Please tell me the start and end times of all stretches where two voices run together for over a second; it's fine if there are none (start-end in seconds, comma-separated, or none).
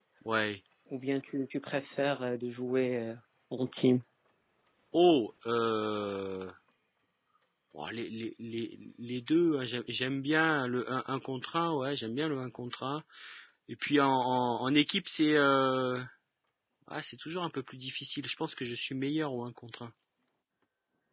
none